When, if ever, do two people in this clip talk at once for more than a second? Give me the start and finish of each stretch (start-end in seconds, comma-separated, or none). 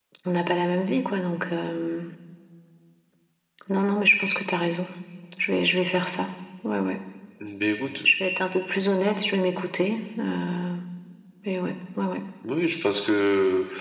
none